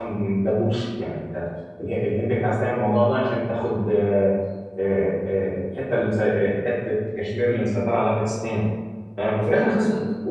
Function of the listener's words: listening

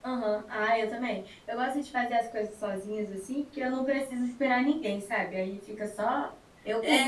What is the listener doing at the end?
taking over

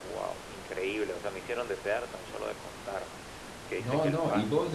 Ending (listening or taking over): taking over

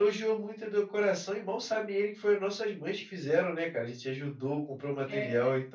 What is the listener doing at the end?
listening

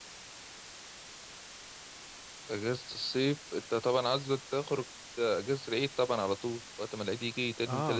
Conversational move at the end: taking over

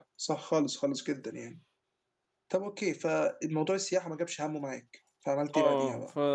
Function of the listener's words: taking over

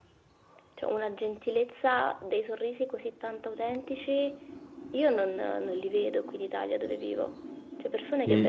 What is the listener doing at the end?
listening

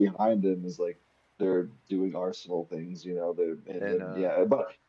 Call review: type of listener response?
listening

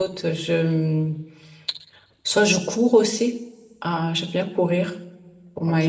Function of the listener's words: taking over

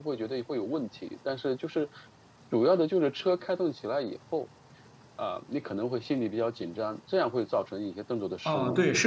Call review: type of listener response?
taking over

